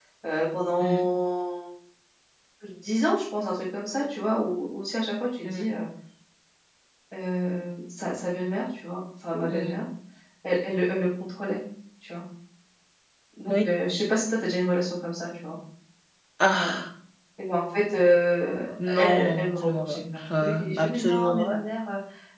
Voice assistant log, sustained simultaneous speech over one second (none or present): present